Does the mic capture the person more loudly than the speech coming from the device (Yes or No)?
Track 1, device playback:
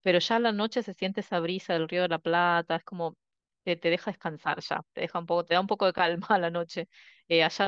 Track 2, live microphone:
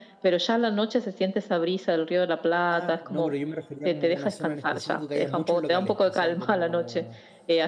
No